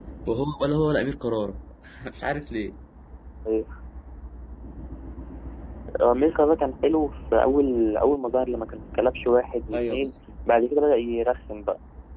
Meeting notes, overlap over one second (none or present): none